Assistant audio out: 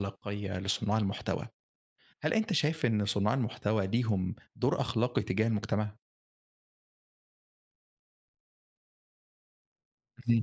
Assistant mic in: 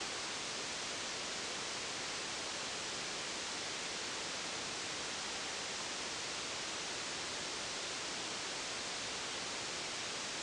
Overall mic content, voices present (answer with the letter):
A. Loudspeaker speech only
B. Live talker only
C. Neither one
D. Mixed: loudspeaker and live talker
C